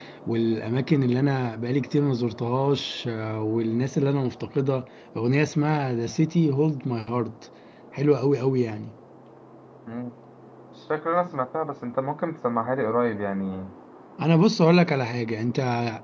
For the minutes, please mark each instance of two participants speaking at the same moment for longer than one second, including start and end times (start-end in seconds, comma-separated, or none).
none